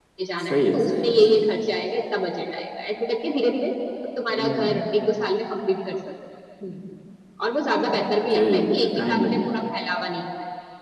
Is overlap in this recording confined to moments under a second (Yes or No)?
No